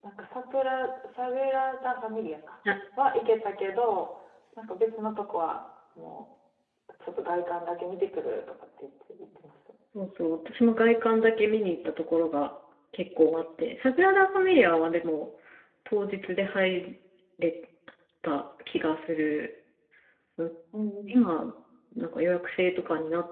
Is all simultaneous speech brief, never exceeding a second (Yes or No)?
Yes